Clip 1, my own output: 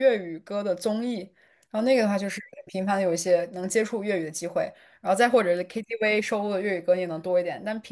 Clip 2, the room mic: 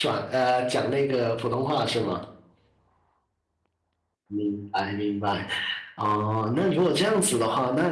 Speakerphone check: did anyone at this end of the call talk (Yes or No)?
Yes